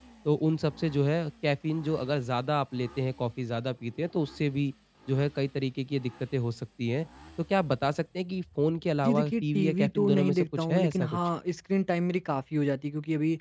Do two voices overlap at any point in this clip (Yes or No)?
Yes